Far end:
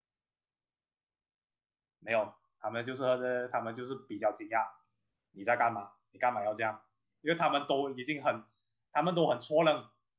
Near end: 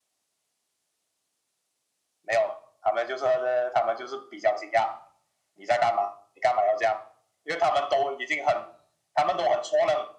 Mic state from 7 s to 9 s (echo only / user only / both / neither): echo only